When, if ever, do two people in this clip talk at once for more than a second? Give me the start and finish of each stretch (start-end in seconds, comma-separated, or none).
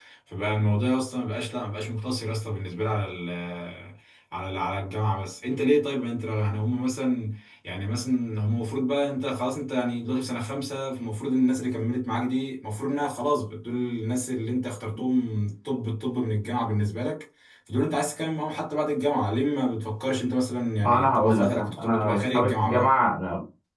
20.8-22.9